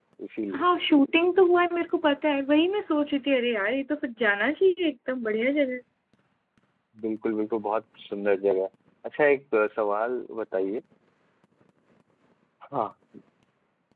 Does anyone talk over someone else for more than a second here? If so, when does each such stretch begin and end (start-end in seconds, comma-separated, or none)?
none